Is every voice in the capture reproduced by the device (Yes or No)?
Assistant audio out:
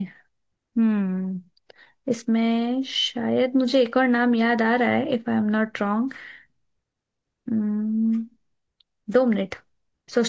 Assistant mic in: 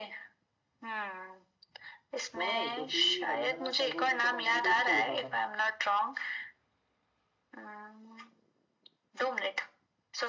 No